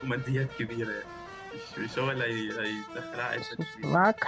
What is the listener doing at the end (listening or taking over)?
taking over